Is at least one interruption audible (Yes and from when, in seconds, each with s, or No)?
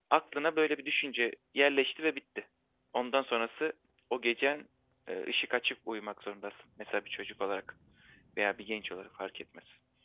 No